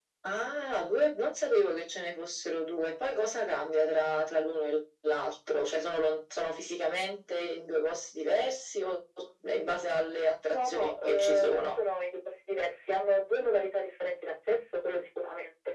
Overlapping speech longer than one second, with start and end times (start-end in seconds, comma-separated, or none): 10.5-11.8